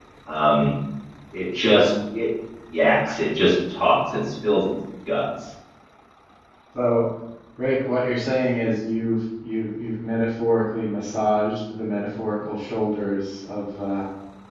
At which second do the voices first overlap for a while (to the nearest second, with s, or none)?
none